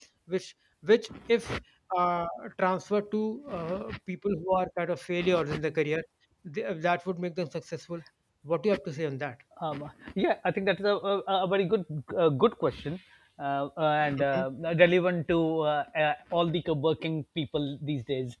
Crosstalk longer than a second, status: none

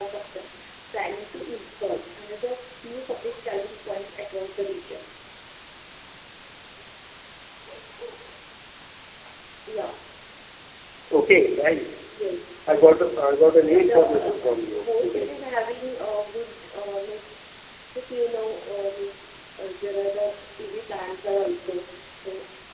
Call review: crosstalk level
present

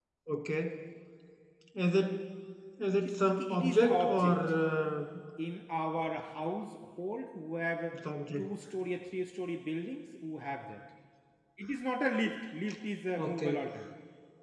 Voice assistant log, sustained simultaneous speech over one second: present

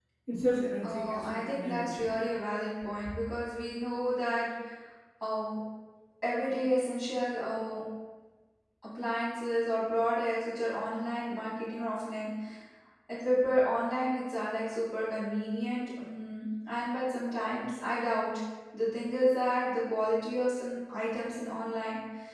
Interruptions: present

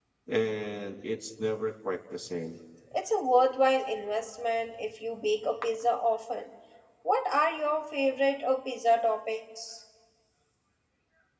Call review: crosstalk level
none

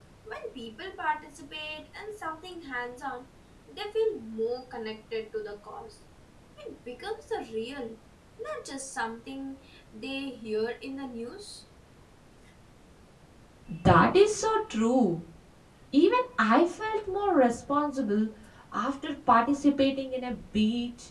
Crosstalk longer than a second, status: none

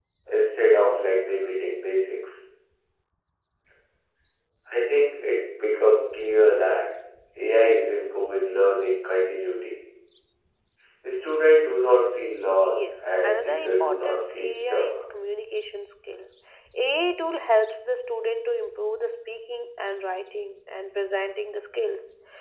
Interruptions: present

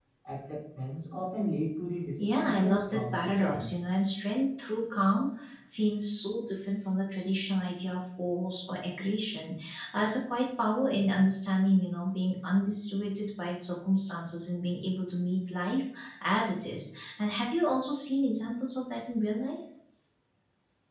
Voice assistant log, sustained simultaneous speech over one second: present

